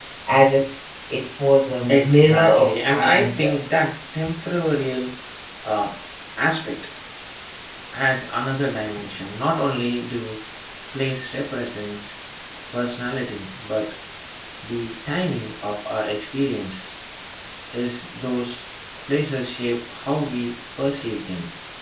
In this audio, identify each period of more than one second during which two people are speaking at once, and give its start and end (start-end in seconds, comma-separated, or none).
1.9-3.6